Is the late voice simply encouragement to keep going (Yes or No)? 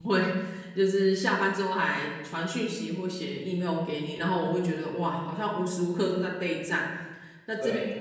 Yes